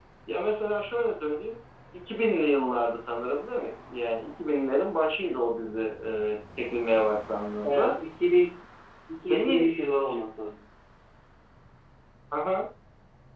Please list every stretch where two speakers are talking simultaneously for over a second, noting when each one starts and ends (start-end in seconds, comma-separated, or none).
none